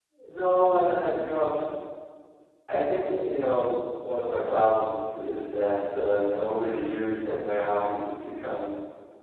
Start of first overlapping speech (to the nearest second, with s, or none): none